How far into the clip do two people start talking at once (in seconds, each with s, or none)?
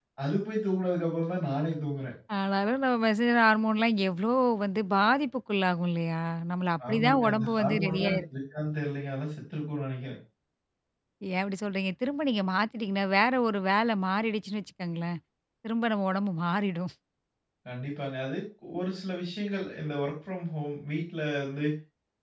6.8 s